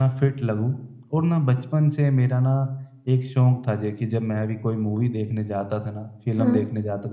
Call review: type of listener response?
listening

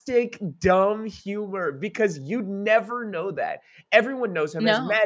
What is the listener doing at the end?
listening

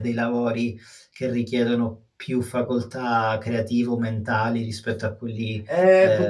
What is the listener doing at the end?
taking over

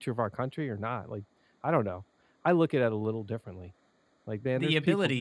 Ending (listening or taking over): listening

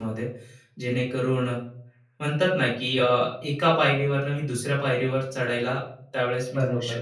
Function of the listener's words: taking over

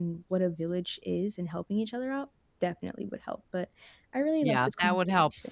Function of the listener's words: taking over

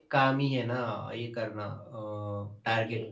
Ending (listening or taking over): taking over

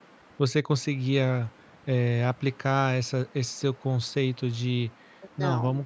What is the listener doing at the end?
listening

